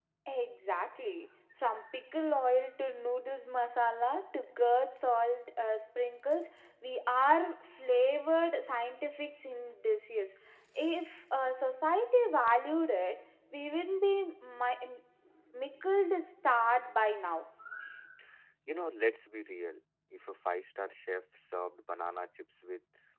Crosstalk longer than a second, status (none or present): none